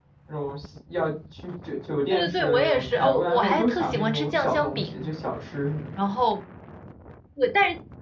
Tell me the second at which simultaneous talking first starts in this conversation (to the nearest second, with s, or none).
2 s